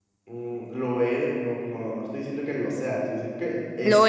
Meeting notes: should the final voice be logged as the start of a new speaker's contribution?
No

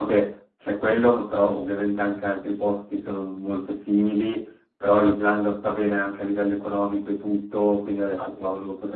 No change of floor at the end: Yes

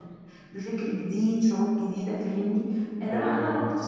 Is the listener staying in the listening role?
Yes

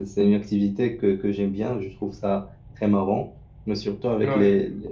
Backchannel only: Yes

